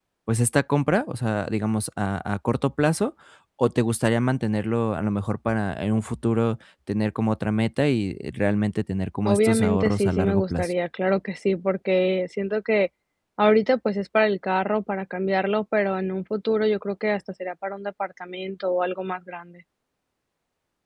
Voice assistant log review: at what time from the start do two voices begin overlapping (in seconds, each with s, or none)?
9.2 s